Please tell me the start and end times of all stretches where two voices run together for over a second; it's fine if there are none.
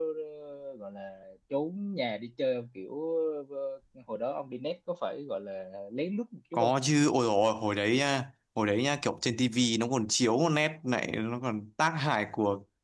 none

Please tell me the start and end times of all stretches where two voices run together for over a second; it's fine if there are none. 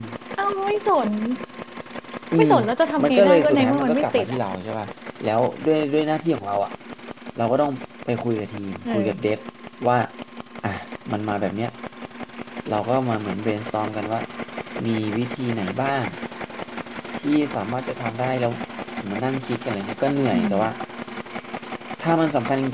3.0-4.4

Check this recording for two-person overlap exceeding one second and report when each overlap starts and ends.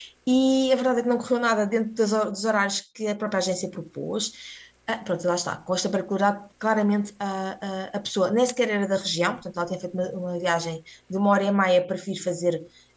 none

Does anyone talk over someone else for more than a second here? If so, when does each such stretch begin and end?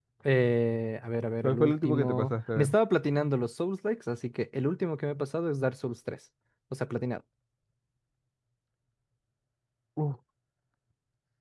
1.4-2.7

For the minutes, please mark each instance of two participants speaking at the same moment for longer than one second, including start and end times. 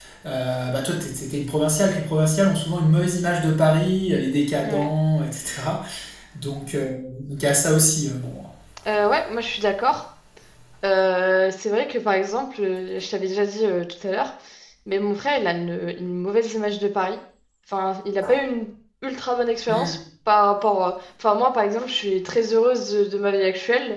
none

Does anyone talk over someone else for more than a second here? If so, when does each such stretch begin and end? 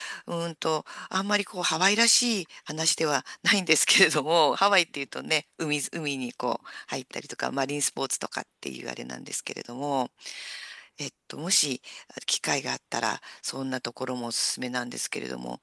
none

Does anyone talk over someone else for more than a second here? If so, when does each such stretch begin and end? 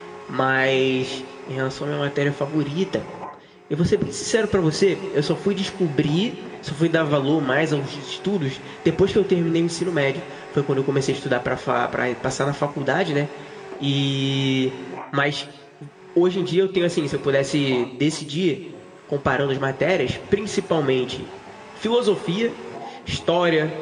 none

